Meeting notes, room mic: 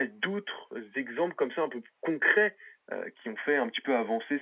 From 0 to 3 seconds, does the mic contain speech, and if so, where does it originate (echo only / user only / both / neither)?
echo only